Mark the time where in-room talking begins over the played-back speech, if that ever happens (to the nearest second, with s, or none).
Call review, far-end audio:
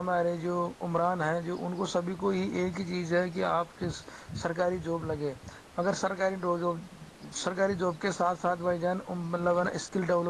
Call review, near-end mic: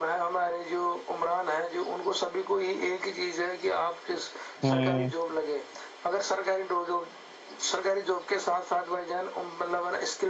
5 s